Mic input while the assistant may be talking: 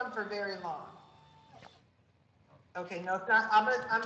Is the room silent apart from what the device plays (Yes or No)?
Yes